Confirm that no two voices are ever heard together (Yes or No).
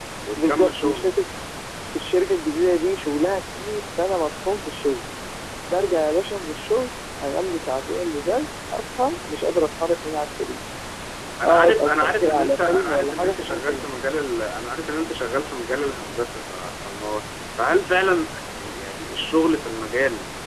No